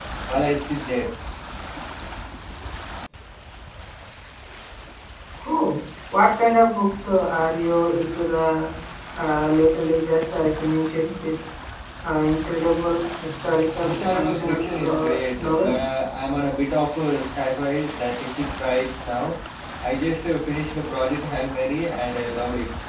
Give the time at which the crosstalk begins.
13.8 s

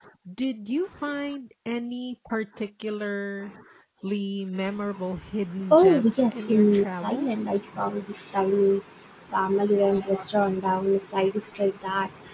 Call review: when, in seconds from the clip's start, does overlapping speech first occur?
5.6 s

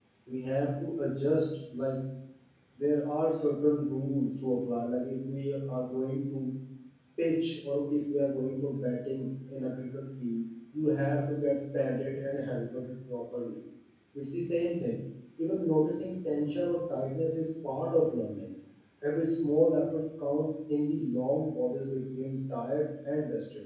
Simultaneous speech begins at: none

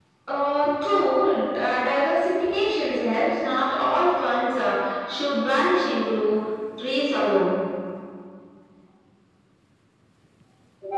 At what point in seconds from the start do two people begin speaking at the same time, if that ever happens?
none

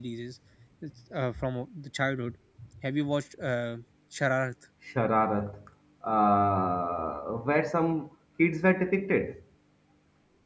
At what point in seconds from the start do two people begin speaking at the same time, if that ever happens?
none

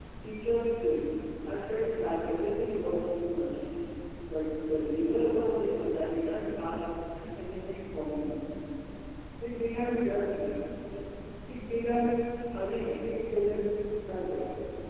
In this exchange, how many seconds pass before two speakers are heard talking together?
none

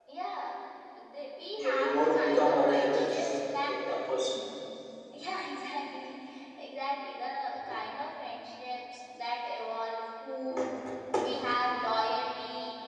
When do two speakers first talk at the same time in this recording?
1.6 s

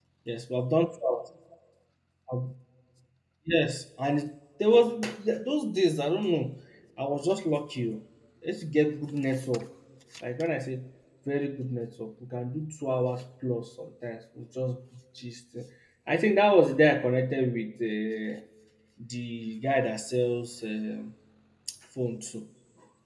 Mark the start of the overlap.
none

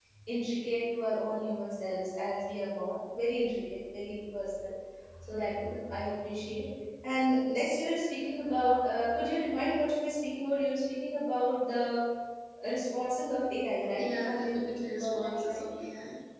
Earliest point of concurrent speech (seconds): 14.0 s

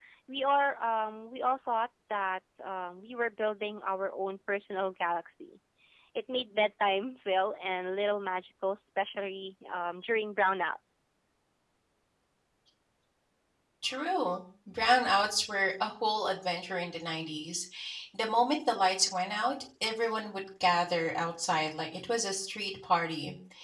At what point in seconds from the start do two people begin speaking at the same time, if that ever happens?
none

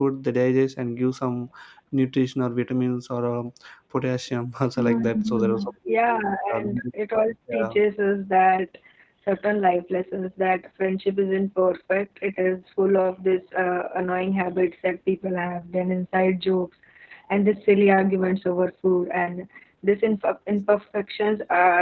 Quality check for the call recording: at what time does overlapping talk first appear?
4.8 s

